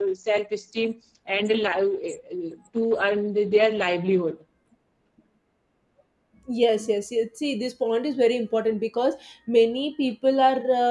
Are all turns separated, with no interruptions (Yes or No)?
Yes